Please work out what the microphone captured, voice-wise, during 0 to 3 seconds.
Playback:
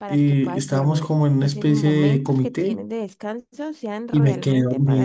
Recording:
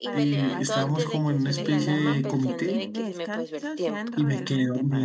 both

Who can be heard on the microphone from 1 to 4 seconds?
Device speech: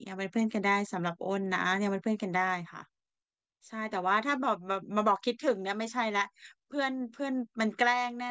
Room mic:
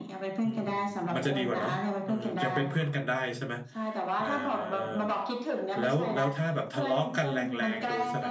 both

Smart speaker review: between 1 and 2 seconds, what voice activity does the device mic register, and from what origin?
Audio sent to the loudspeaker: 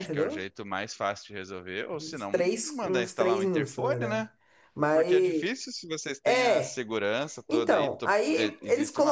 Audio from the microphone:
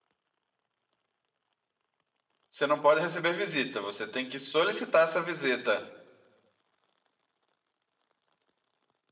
neither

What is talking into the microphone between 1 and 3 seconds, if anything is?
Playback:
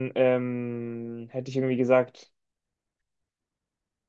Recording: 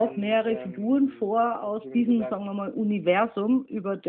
both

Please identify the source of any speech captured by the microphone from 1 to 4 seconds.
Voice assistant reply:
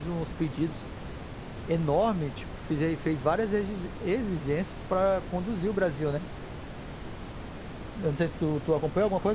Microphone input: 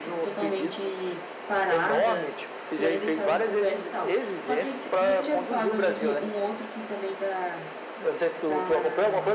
both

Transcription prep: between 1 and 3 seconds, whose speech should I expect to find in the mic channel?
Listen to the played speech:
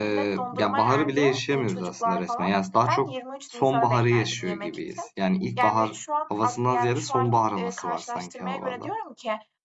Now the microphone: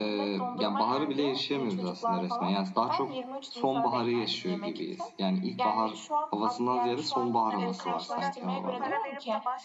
echo only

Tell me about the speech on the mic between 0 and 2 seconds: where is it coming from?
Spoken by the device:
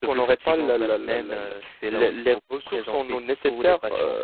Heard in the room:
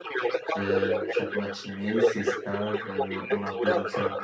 both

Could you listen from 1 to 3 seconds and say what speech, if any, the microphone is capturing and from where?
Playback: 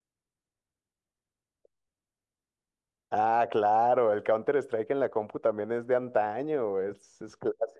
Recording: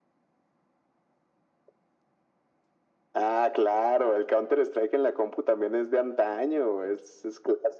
neither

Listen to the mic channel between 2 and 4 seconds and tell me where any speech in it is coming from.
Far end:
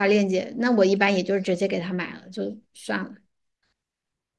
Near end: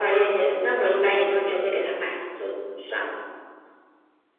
echo only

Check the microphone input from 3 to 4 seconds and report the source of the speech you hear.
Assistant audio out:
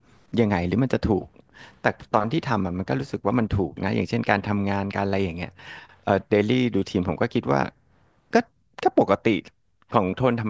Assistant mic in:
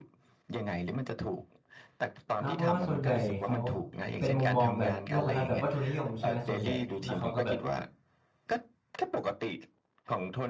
both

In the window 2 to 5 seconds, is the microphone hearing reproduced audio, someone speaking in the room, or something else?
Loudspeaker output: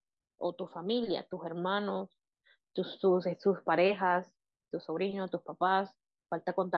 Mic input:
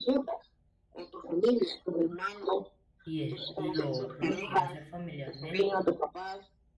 both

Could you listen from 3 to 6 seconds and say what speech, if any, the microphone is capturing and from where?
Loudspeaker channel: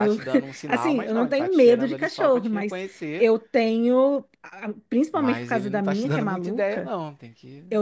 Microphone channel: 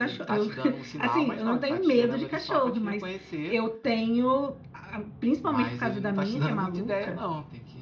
echo only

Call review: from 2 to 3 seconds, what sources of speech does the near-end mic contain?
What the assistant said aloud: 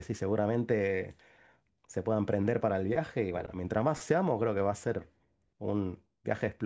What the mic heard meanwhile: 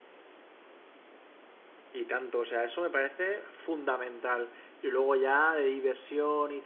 user only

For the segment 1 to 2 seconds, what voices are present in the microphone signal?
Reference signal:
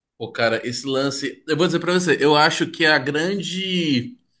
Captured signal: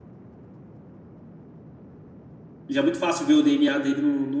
neither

